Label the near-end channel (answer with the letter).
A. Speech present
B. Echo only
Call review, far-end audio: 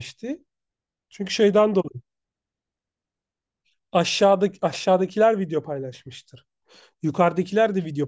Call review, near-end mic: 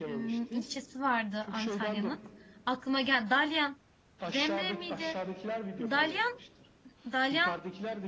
A